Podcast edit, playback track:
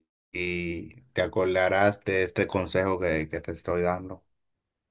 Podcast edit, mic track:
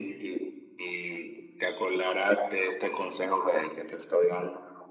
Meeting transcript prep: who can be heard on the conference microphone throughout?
echo only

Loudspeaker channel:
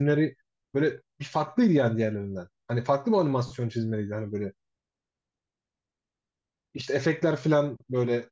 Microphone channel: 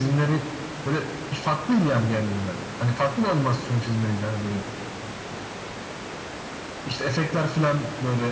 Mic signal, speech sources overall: echo only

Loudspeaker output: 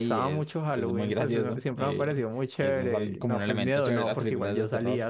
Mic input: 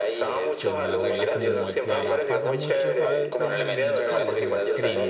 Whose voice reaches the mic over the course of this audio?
both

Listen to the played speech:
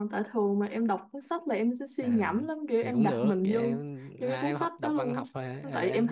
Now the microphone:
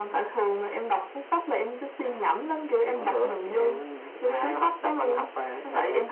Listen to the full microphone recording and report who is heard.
echo only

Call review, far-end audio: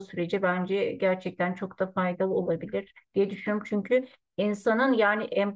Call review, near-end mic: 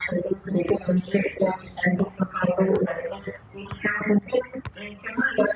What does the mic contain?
echo only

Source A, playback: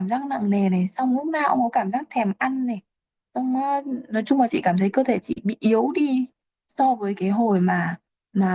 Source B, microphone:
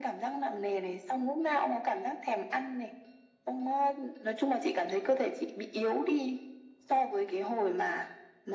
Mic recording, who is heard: echo only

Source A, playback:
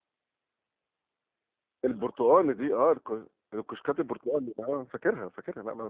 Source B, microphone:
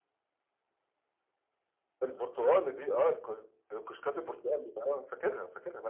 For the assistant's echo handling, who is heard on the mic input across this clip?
echo only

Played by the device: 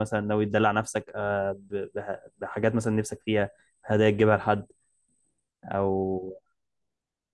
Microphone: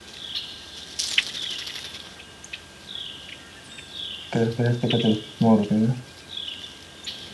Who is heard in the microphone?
user only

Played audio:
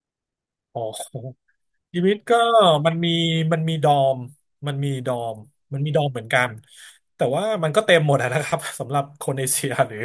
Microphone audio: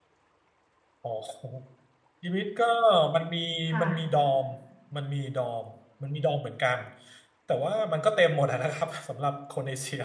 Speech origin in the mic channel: both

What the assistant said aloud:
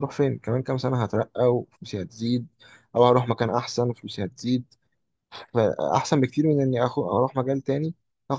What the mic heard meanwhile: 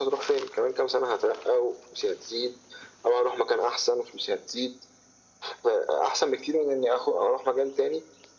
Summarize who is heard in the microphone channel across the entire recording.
echo only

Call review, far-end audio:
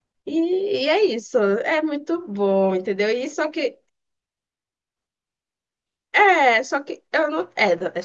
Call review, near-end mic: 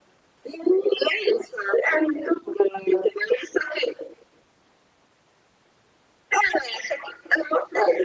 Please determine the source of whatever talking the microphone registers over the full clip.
echo only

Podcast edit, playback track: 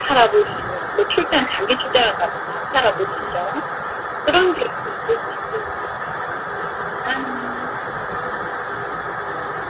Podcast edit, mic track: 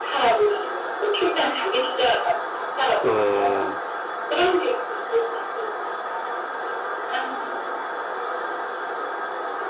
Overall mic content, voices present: both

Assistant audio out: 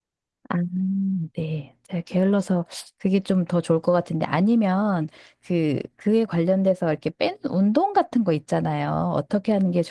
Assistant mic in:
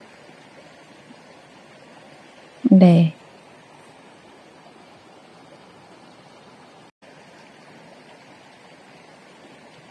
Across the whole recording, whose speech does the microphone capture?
user only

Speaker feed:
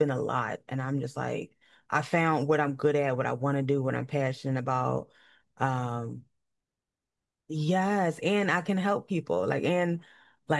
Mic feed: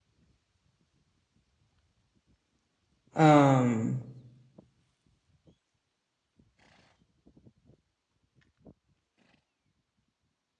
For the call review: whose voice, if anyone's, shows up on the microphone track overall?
user only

